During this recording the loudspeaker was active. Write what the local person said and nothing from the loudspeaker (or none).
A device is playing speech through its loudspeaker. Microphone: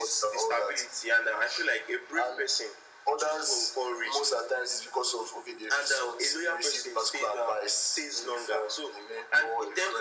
none